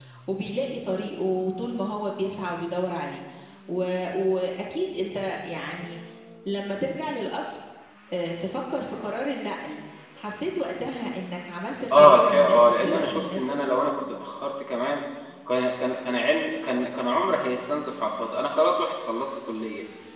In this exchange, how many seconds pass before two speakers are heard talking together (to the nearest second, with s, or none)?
12 s